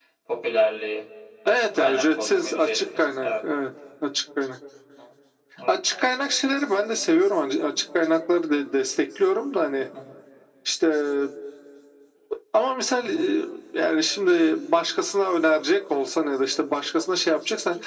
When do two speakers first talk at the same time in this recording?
1.5 s

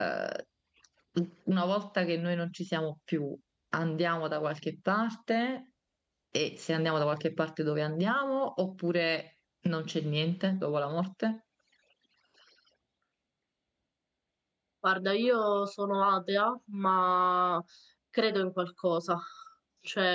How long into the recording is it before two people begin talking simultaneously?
none

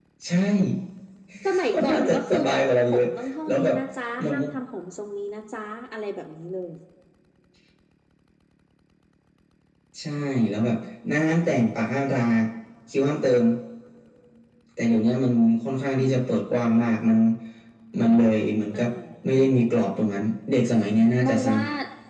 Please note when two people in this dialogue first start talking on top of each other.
1.7 s

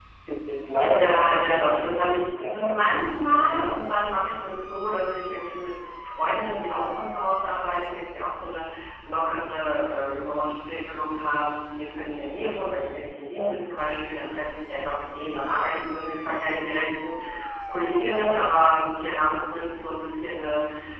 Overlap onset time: 0.8 s

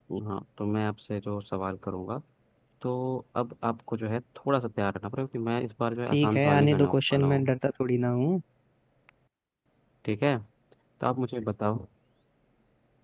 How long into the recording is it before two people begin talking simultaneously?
6.1 s

